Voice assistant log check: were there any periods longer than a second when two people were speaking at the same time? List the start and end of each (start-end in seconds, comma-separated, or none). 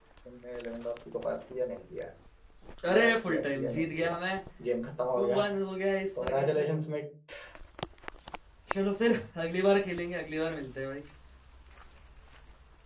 2.9-4.2